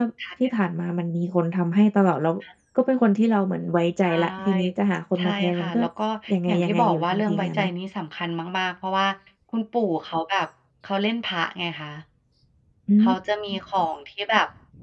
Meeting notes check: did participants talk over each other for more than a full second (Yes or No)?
Yes